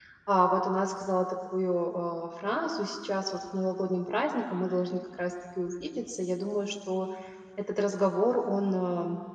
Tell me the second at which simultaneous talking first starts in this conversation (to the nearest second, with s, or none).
none